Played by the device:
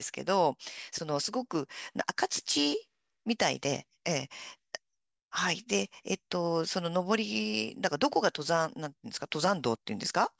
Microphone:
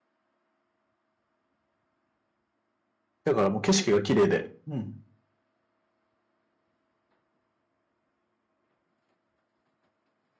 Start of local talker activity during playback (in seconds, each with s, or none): 3.2 s